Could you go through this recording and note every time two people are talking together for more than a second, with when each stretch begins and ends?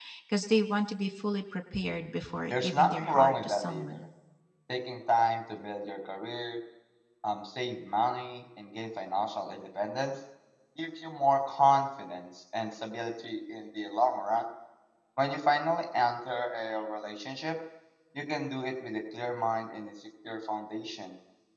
2.5-4.1

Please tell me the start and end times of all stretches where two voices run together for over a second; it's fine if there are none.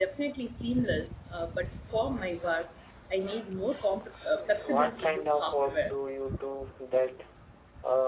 4.3-6.0

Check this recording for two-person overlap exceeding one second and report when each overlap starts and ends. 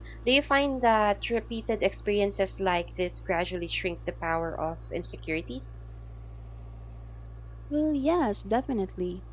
none

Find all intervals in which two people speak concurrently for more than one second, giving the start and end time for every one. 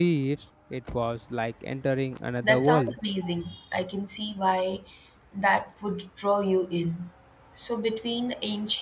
none

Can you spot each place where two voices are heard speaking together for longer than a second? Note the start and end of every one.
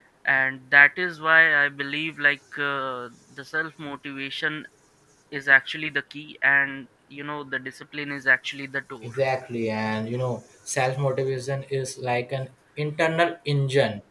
none

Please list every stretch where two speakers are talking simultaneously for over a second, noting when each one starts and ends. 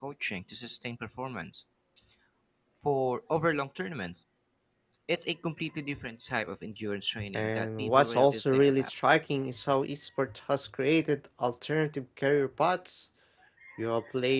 7.3-8.9

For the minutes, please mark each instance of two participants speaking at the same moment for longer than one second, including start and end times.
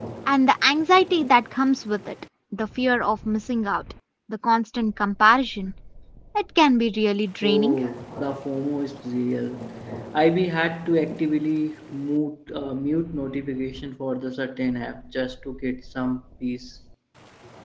none

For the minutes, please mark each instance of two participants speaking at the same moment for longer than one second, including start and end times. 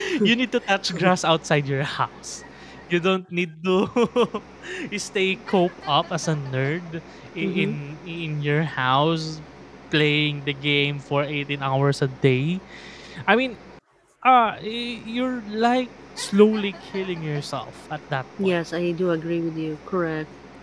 none

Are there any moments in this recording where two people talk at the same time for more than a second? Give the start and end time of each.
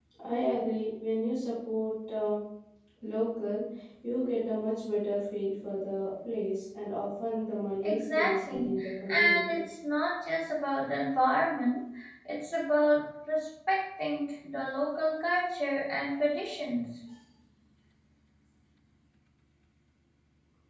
7.8-9.6

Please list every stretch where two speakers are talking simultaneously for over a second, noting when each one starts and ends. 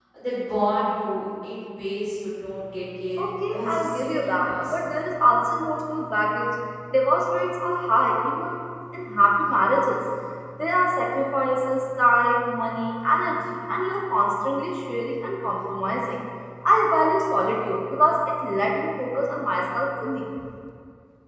3.2-4.8

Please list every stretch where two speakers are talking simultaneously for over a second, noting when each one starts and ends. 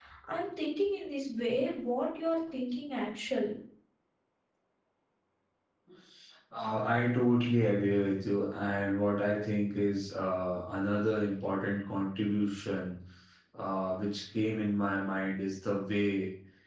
none

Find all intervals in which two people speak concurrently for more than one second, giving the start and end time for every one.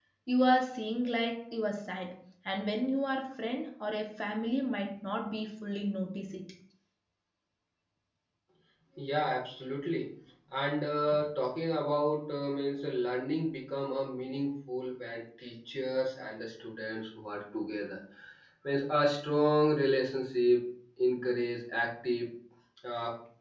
none

